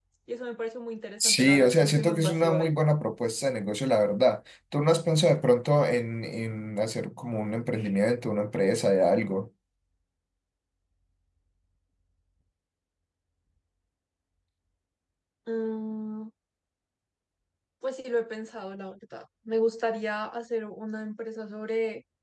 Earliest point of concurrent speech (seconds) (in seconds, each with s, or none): 1.2 s